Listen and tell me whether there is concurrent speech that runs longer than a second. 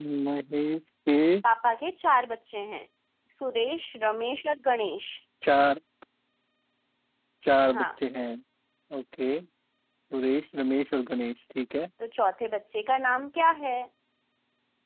No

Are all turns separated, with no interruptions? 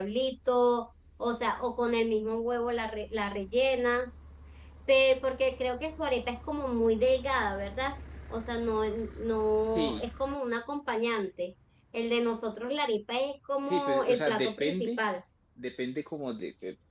No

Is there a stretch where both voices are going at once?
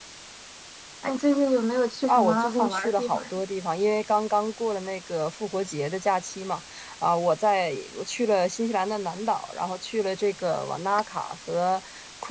Yes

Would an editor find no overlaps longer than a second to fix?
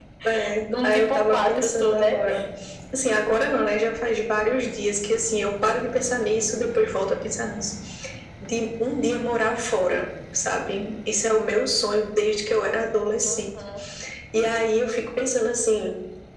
No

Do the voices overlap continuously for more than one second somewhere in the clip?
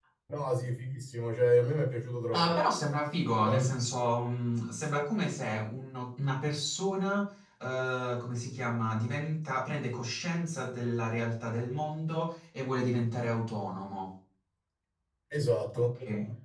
No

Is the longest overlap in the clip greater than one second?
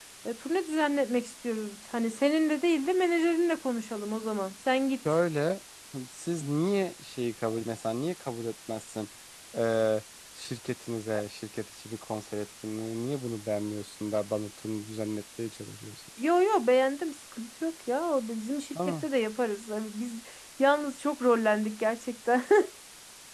No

